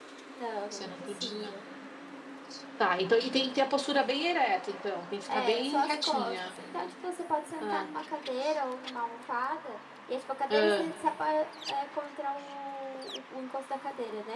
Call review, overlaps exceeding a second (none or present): present